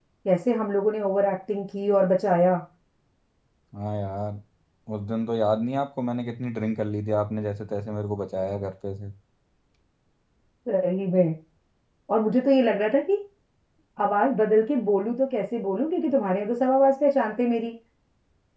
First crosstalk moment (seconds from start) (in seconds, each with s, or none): none